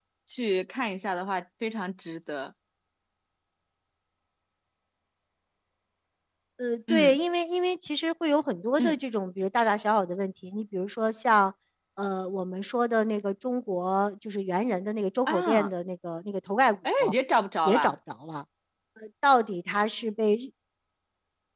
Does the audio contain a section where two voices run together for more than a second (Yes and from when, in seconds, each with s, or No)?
No